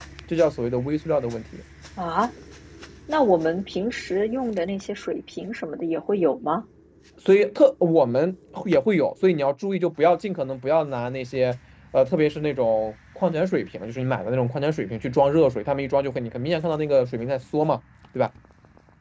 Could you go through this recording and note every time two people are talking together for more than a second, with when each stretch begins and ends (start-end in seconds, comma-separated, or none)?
none